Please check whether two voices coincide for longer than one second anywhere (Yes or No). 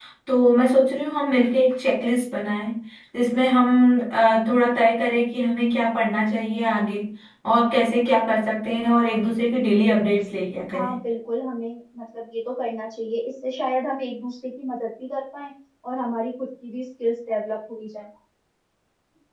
No